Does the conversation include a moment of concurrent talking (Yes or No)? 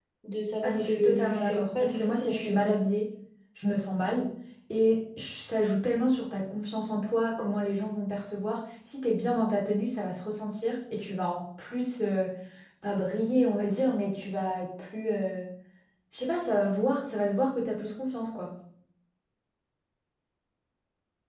Yes